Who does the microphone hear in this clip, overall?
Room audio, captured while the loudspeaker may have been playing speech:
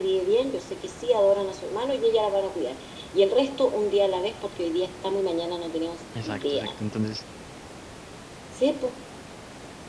both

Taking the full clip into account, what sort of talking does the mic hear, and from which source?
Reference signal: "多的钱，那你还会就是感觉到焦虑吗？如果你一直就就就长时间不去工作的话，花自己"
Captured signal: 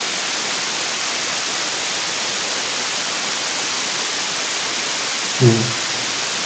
user only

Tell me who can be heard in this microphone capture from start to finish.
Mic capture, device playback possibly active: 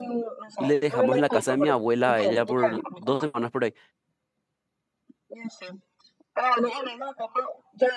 both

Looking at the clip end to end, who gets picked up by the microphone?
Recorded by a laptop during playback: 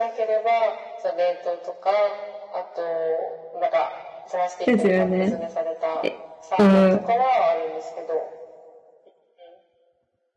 both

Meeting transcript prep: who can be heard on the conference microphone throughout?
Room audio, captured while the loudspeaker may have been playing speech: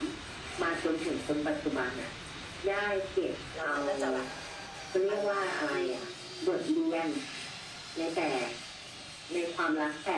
both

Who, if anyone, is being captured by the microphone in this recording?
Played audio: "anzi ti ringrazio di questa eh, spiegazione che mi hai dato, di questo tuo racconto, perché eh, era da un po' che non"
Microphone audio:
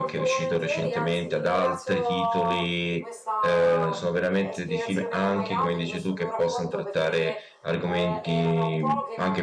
both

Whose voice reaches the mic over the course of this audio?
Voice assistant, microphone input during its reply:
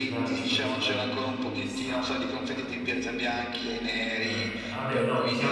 both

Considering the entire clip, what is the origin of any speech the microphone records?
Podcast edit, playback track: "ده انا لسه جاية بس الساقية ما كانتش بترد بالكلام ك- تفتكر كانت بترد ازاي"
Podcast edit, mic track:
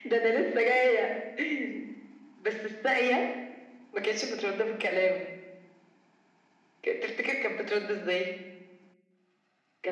echo only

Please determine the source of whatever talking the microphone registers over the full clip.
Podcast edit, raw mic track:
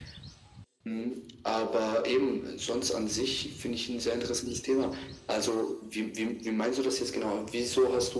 echo only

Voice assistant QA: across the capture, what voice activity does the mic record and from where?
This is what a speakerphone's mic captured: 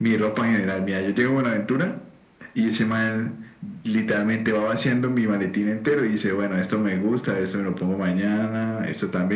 echo only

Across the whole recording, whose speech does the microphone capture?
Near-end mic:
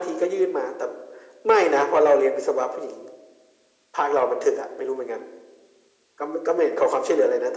echo only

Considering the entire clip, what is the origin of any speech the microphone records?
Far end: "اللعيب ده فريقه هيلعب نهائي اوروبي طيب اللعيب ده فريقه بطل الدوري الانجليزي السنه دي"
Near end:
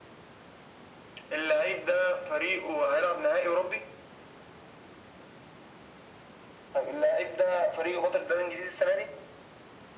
echo only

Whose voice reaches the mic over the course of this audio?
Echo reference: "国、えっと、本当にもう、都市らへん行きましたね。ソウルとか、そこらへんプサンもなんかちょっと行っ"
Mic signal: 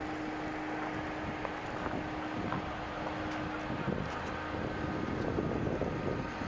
neither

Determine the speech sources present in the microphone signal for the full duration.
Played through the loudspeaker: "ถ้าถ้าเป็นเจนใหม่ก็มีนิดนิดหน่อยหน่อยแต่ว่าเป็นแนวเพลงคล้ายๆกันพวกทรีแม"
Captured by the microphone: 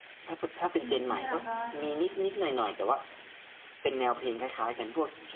both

